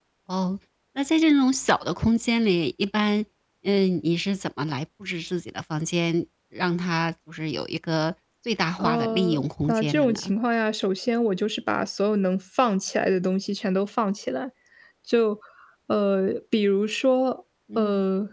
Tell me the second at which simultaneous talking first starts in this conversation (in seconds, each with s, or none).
8.8 s